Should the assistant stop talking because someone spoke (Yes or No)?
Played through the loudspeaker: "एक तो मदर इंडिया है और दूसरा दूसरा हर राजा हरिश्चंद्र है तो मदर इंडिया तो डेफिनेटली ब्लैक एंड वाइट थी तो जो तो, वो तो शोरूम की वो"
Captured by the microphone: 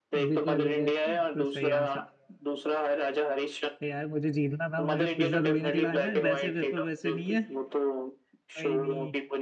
Yes